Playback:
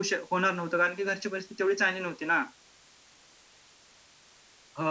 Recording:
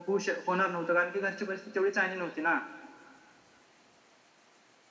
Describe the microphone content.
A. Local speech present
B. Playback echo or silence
B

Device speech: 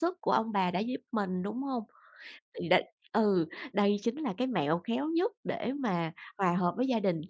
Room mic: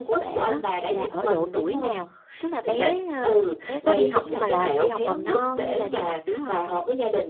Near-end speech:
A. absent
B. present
B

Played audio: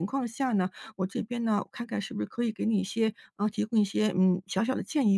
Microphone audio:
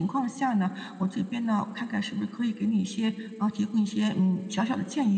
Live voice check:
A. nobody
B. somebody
A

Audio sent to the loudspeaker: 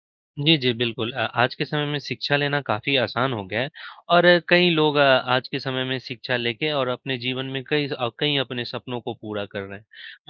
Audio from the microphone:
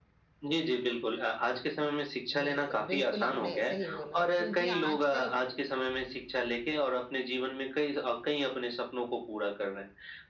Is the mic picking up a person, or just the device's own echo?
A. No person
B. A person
B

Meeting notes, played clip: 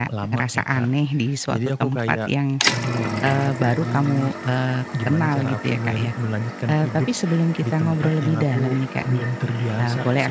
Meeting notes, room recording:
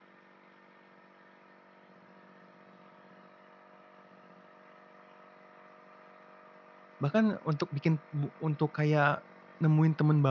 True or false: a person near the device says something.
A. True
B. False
A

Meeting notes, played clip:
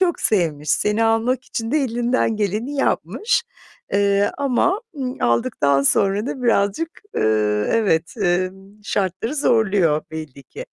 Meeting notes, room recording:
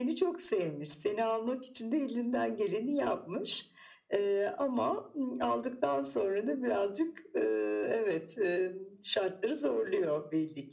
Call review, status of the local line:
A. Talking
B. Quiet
B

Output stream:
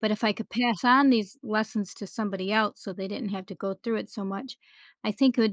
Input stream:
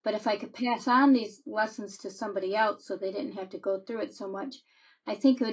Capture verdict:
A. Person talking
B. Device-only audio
B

